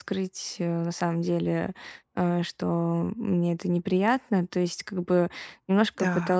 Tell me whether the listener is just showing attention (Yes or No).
Yes